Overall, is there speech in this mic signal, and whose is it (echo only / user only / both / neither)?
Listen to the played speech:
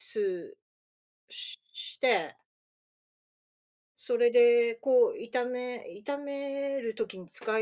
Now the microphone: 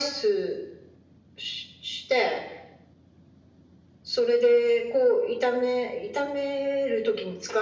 echo only